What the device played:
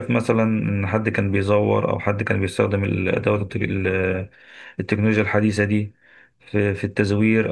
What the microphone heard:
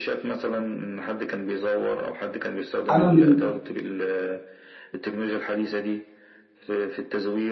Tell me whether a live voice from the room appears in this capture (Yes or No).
Yes